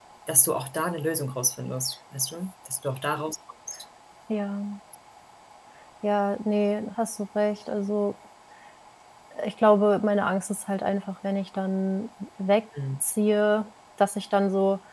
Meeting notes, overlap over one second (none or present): none